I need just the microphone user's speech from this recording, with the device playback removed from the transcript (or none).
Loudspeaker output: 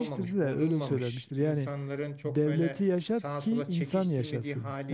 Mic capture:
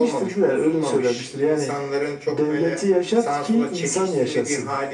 none